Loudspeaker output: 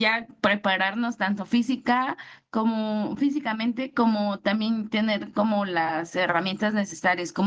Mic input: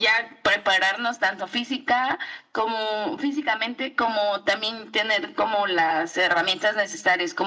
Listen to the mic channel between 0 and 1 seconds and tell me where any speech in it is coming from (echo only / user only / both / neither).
echo only